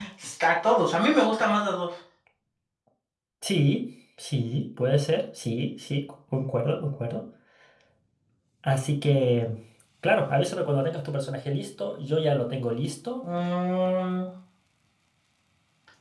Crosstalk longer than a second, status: none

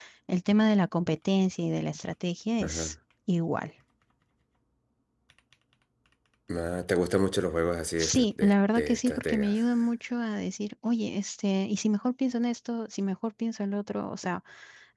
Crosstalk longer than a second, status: present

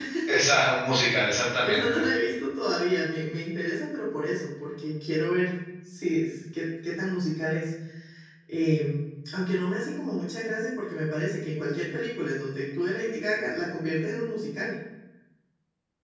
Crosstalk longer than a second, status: none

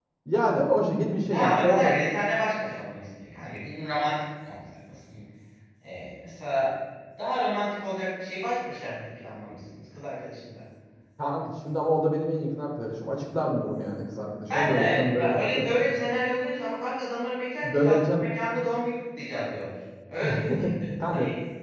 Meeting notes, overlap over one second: present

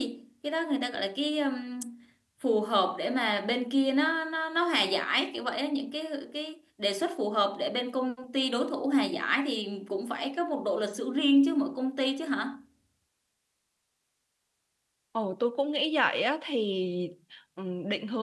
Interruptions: none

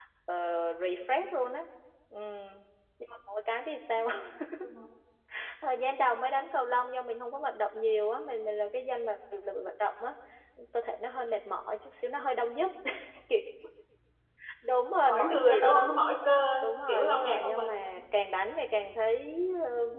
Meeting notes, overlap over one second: present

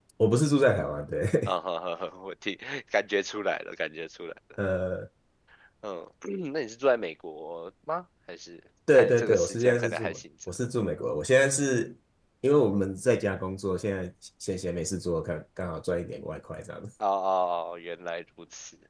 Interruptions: present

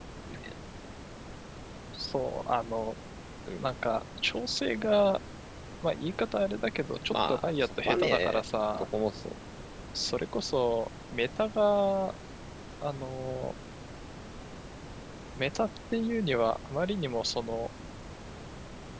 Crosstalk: present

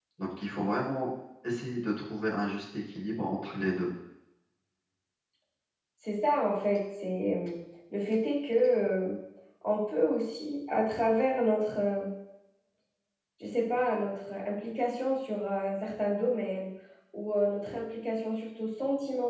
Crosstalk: none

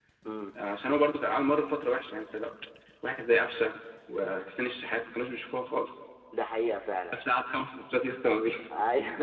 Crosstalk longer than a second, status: none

